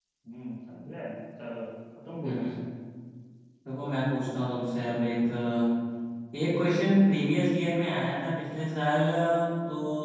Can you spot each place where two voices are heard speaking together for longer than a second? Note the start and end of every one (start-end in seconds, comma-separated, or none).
none